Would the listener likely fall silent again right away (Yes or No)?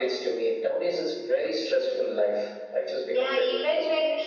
No